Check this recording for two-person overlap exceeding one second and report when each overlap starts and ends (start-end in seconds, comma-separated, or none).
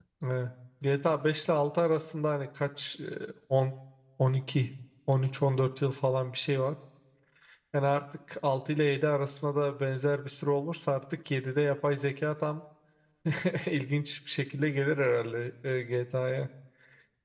none